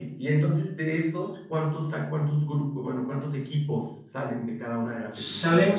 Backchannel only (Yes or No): No